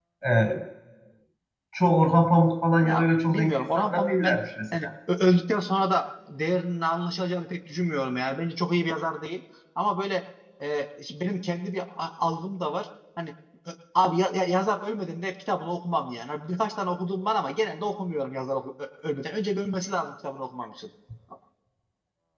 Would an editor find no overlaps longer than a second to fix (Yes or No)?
No